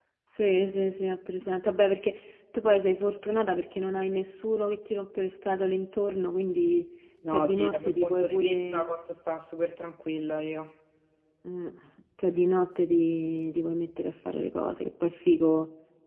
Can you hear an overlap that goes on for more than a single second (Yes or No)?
Yes